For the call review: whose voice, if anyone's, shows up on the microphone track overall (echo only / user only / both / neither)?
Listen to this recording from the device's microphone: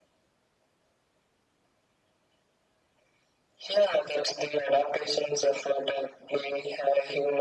echo only